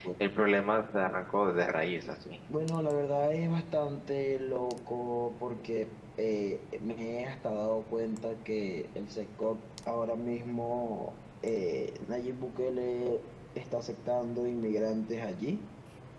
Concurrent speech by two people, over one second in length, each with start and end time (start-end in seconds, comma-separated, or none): none